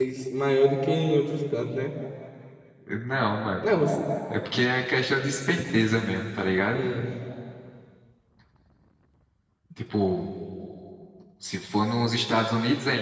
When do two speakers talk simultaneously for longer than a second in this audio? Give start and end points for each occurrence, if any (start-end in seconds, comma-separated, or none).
none